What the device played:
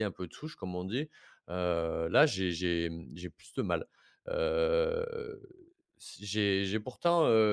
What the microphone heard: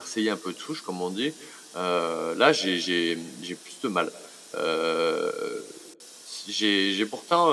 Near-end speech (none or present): none